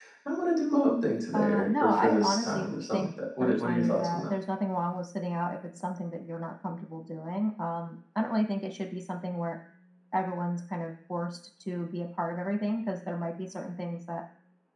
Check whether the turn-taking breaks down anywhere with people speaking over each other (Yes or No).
Yes